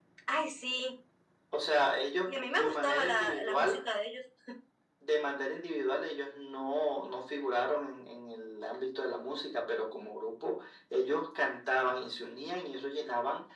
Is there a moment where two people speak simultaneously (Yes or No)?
Yes